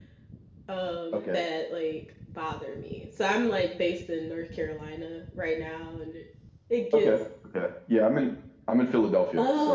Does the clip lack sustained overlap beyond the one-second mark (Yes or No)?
Yes